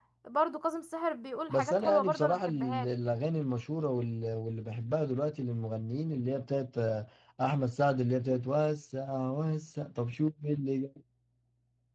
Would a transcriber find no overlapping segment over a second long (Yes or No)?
No